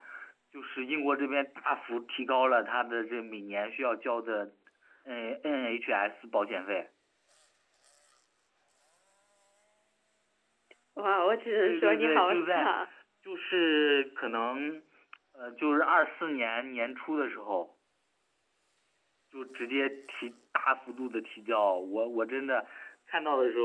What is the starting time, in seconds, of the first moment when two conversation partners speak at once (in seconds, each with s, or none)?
11.6 s